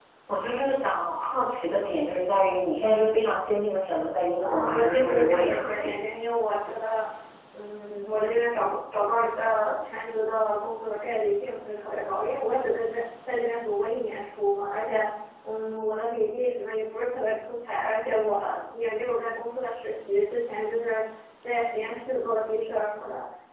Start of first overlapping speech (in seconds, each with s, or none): 4.4 s